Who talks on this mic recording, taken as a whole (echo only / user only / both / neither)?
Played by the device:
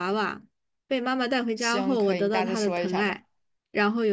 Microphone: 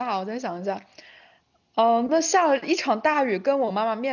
user only